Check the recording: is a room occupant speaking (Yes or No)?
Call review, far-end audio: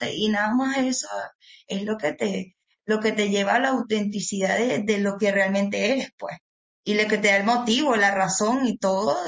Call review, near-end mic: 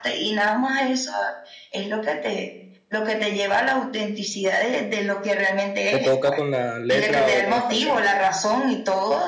Yes